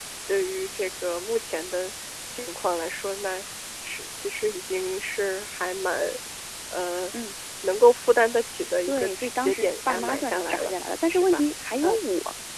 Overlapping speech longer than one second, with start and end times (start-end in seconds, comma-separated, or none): 8.8-10.7